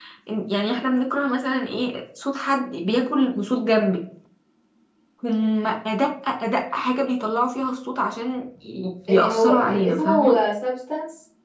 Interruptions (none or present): present